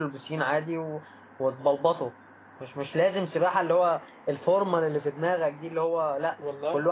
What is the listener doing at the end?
listening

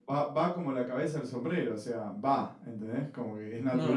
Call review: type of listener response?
taking over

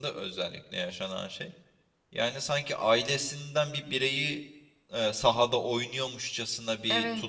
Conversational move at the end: listening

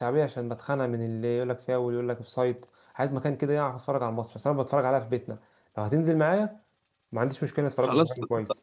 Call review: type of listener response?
taking over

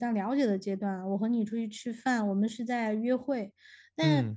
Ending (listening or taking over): listening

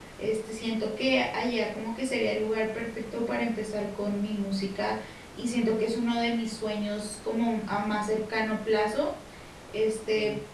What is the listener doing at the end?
listening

